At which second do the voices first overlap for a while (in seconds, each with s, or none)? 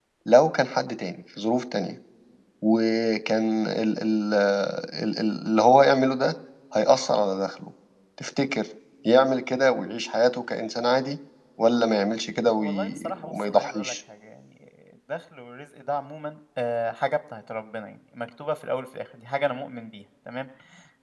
12.6 s